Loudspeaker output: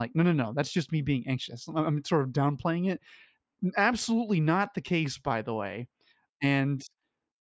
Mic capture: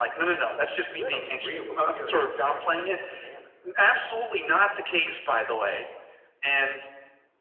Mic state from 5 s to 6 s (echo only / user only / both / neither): echo only